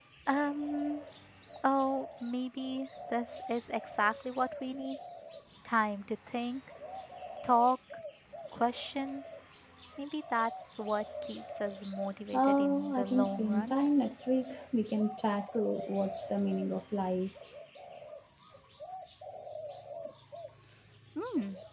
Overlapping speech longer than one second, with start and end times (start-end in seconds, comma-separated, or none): 12.3-13.7